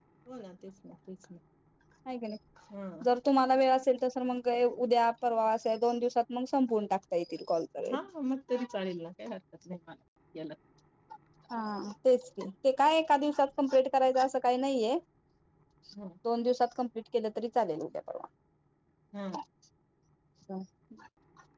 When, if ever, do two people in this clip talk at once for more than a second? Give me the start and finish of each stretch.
none

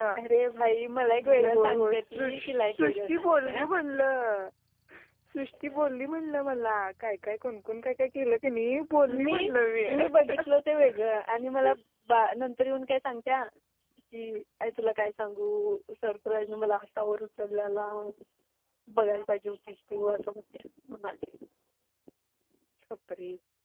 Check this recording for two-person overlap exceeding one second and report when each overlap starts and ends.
1.2-3.6

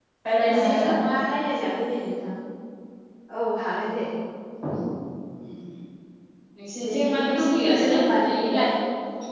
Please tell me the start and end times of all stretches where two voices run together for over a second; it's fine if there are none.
6.8-8.4

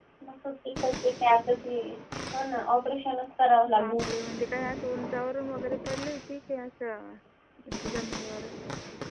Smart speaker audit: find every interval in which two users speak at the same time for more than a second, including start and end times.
none

